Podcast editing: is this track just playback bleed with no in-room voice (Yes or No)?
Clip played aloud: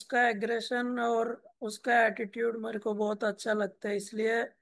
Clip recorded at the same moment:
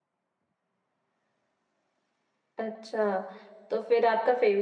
No